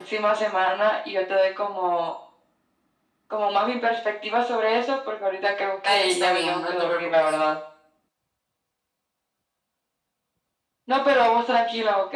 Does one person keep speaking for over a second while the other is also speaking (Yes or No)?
Yes